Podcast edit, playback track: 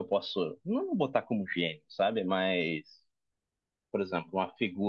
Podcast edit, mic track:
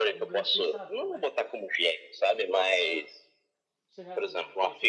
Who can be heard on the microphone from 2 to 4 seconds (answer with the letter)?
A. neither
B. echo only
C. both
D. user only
C